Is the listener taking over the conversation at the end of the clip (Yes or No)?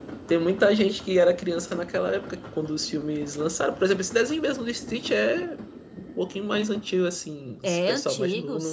Yes